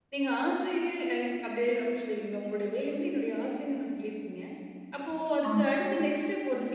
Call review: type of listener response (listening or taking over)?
listening